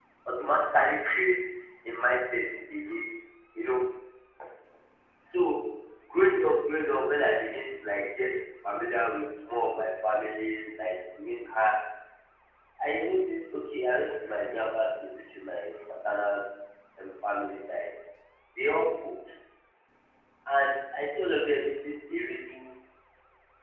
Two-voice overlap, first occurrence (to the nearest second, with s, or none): none